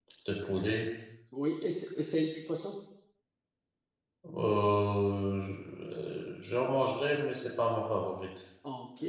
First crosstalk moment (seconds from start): none

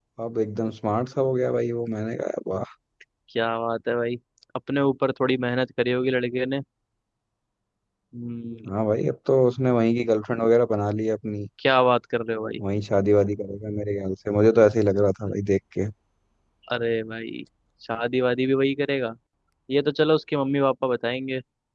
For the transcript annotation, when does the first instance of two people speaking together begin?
none

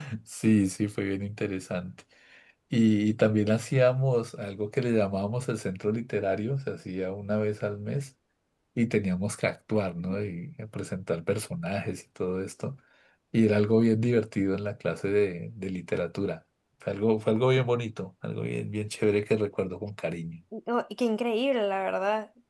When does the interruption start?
none

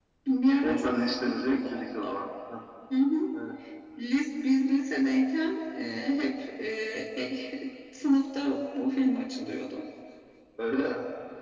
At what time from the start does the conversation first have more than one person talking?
0.6 s

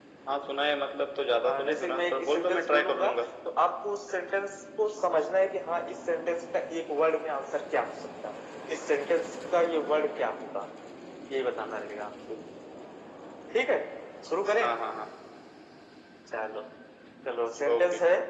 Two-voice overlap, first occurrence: 1.4 s

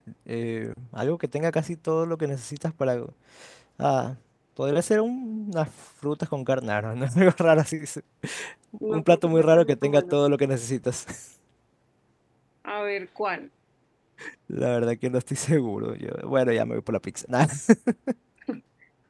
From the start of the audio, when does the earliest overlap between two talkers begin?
8.9 s

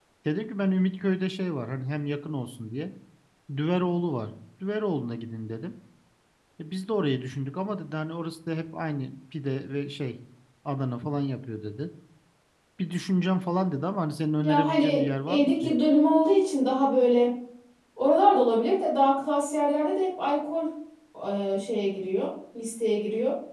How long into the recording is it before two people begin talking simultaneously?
14.4 s

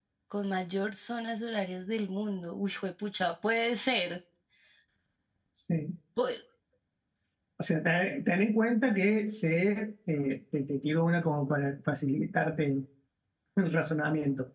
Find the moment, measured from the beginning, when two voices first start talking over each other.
none

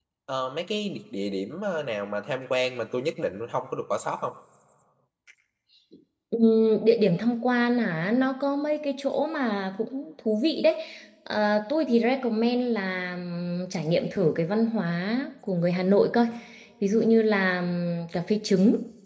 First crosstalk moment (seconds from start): none

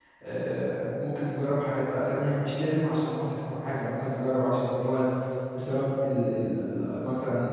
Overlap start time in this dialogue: none

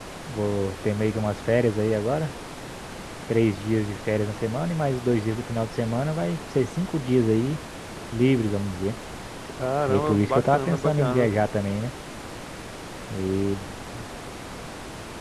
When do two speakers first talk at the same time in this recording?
9.9 s

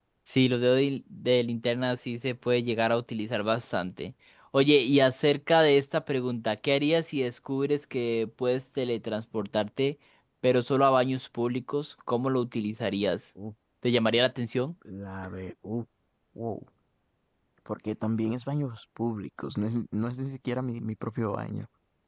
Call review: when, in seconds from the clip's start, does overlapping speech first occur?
none

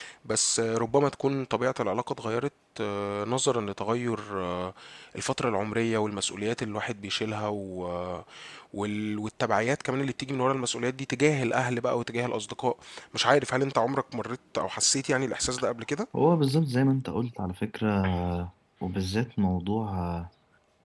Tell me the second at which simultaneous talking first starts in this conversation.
none

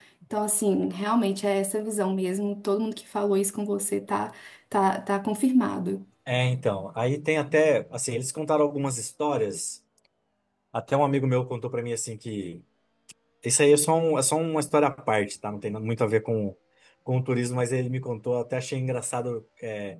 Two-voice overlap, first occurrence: none

